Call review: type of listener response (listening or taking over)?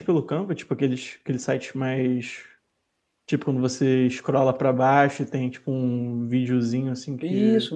taking over